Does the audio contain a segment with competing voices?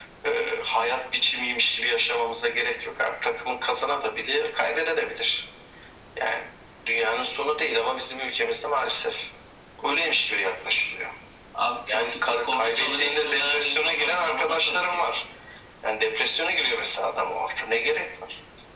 Yes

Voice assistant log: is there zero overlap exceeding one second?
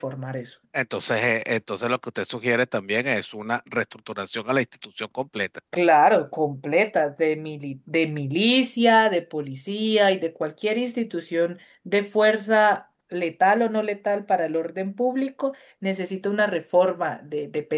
Yes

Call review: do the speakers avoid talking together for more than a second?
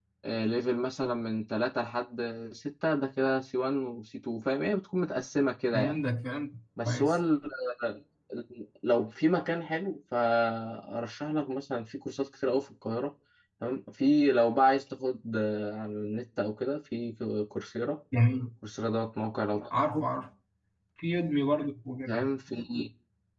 Yes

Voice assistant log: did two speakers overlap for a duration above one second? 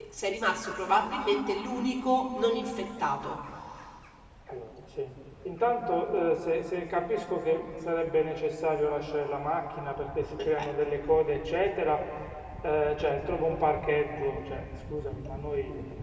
No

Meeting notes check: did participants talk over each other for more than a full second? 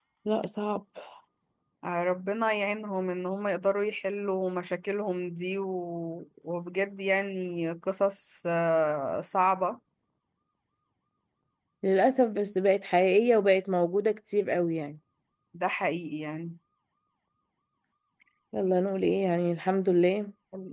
No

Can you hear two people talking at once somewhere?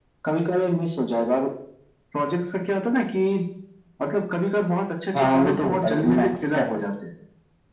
Yes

